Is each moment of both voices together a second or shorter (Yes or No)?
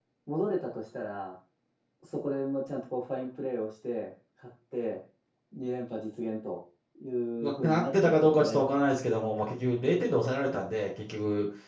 No